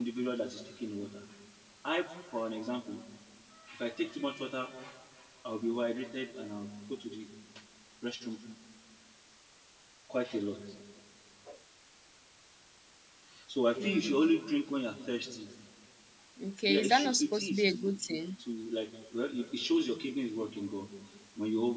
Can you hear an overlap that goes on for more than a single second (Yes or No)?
Yes